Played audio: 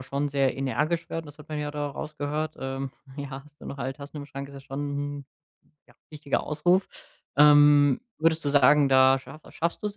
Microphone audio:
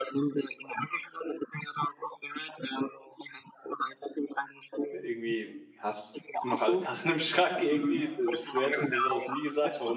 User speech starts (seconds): 4.9 s

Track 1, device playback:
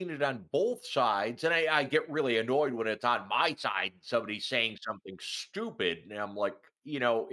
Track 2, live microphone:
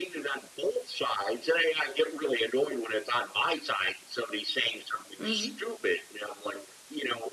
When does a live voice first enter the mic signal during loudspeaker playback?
5.2 s

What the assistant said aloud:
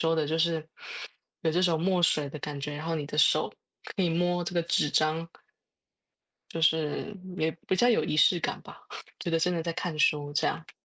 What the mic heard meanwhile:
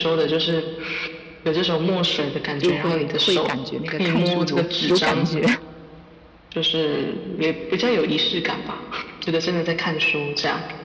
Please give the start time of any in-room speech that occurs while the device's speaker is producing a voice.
2.6 s

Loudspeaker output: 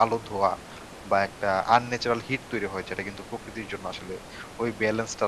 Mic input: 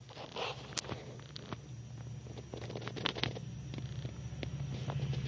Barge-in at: none

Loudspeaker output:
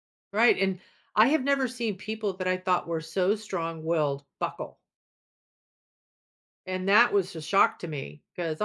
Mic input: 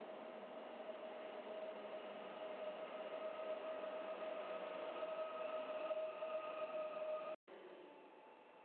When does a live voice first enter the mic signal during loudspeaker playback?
none

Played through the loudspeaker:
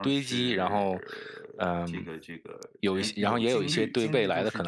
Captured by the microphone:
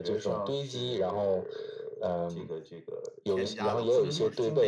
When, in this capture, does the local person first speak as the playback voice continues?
3.3 s

